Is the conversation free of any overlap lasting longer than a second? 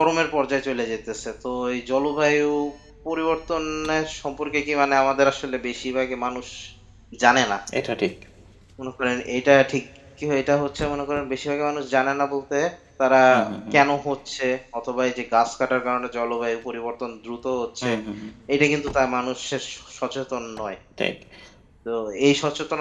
Yes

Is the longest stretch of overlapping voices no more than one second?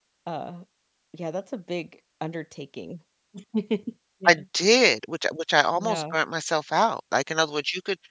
Yes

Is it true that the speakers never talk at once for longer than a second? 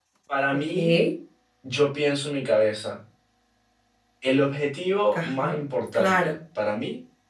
Yes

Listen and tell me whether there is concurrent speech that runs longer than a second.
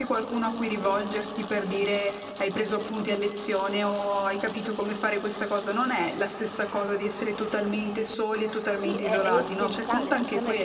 Yes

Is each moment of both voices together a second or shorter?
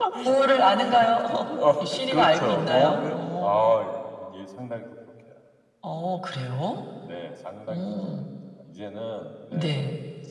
No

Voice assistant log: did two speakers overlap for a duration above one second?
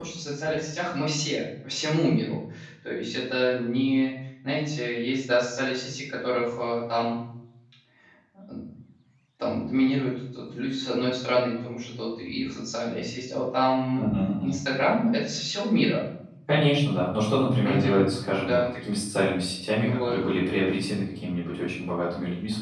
No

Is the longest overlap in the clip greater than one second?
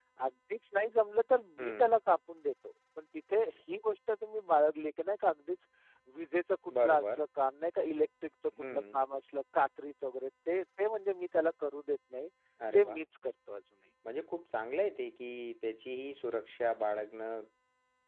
No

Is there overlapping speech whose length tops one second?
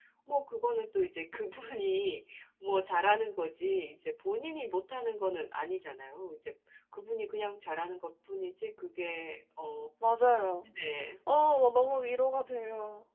No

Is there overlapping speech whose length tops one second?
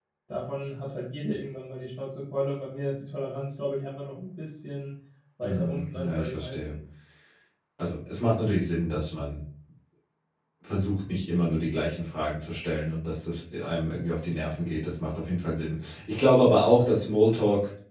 Yes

